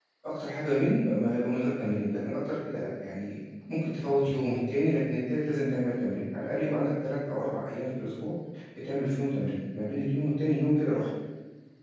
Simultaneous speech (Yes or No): No